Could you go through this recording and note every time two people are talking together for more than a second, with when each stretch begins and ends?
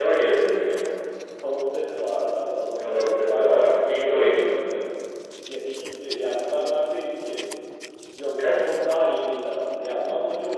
2.8-4.6

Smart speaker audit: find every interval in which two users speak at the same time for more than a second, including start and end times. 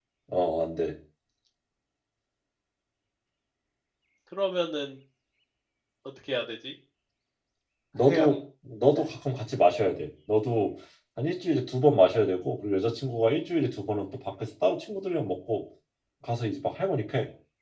none

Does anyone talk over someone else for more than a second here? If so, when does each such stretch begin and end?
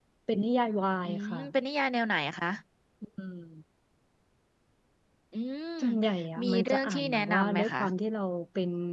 6.4-7.8

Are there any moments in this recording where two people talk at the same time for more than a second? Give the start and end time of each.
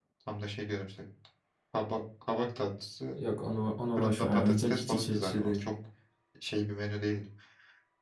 4.0-5.7

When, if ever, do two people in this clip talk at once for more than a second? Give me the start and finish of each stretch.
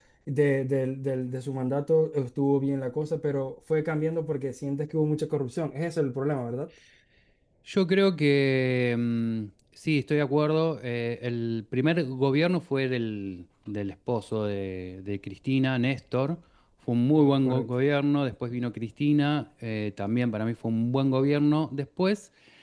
none

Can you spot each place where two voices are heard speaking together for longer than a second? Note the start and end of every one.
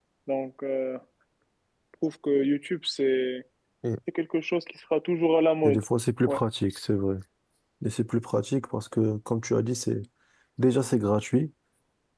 none

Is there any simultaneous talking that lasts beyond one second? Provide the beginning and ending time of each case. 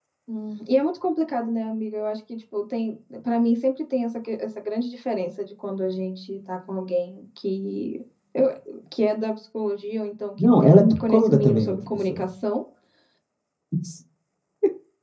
10.4-12.2

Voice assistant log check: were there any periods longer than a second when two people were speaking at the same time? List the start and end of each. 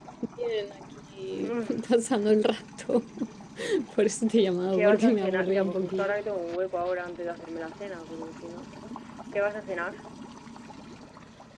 4.7-6.2

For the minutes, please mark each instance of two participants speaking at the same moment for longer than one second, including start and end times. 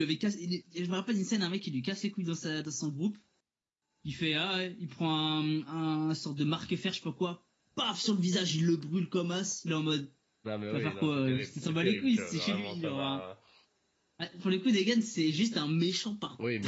10.7-13.2

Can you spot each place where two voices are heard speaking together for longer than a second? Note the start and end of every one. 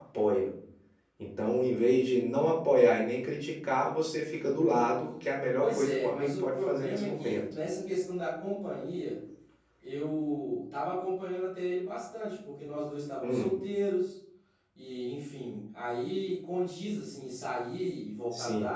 5.6-7.4

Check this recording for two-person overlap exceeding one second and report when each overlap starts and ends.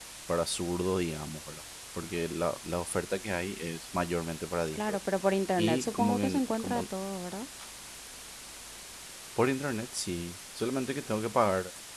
5.6-6.8

